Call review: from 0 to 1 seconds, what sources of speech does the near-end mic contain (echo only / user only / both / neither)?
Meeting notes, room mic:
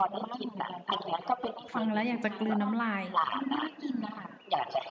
echo only